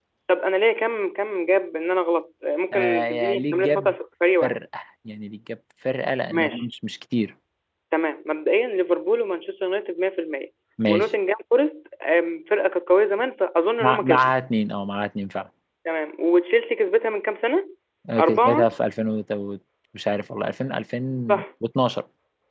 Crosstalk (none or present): present